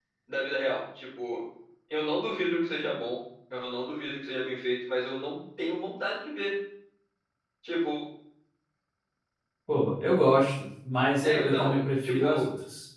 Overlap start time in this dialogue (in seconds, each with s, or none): 11.2 s